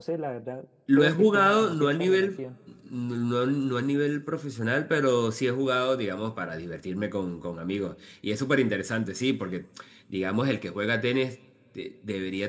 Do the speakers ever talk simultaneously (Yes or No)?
Yes